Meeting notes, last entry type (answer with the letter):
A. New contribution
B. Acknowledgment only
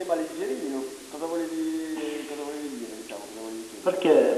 A